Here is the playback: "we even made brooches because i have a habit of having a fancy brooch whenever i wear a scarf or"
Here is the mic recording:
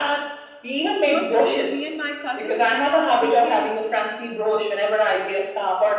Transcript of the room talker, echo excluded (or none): you won't believe me and my cousin we ended up making